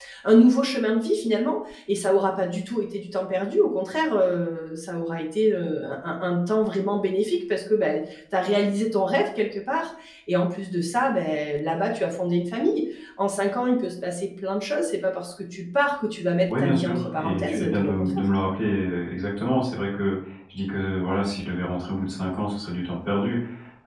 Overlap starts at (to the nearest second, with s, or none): 16 s